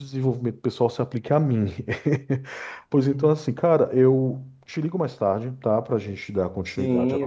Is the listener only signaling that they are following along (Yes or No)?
No